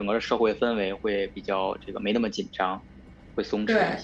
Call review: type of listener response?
taking over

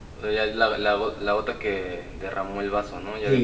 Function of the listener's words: taking over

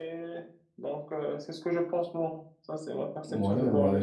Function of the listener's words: taking over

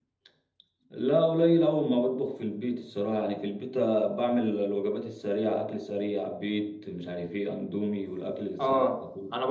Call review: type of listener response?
taking over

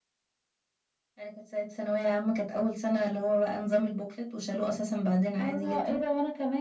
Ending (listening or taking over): taking over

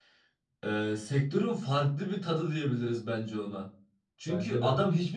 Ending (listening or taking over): listening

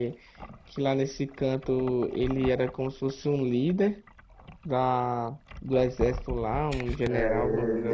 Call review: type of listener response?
taking over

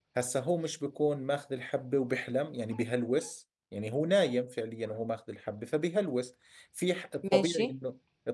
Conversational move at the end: listening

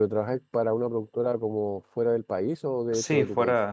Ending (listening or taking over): taking over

